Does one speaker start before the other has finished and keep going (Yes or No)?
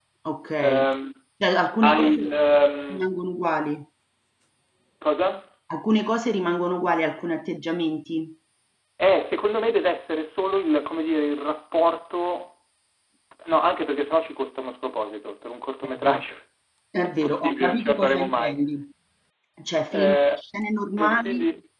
Yes